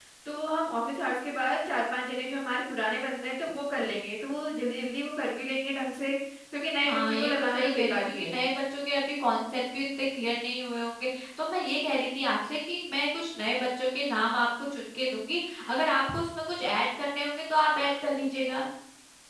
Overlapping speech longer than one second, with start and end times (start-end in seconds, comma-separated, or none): 6.8-8.4